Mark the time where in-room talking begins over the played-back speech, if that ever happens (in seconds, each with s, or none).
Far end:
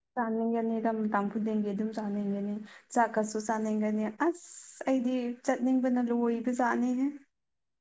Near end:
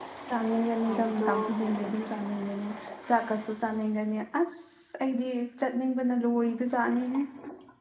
0.8 s